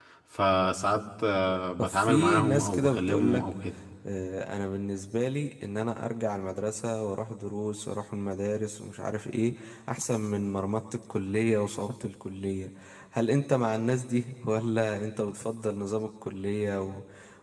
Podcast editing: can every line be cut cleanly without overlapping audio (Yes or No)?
No